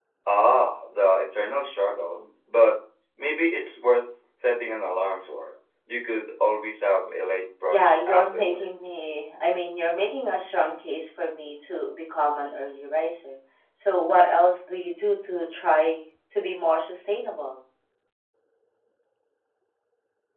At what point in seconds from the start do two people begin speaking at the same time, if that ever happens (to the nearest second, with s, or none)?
8 s